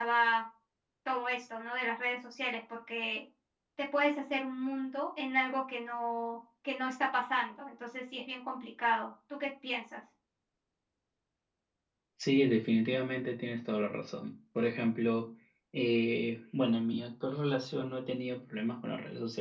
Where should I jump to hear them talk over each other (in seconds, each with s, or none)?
none